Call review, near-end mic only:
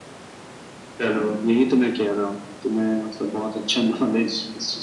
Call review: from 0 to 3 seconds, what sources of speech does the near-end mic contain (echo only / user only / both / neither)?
echo only